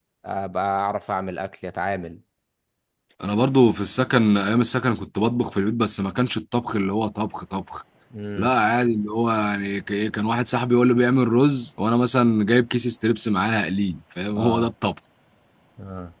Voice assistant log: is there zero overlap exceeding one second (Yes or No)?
Yes